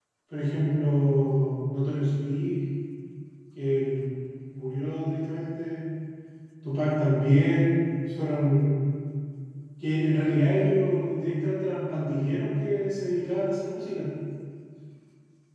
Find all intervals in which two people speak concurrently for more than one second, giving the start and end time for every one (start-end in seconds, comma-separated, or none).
none